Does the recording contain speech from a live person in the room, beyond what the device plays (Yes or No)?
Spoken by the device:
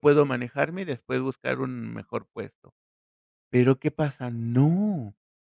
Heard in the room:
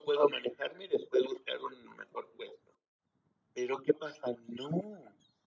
No